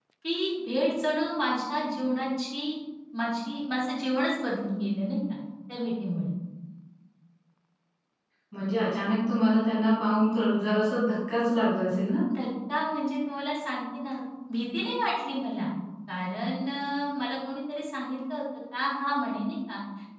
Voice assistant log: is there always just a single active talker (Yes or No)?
Yes